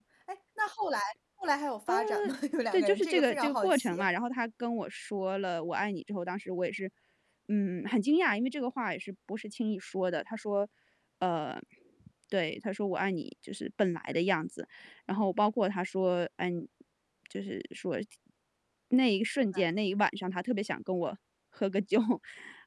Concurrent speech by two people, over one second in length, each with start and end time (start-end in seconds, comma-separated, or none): 2.7-4.1